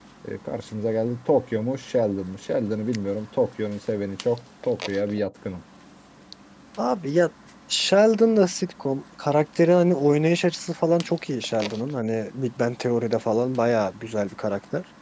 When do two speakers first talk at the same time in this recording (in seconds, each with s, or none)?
none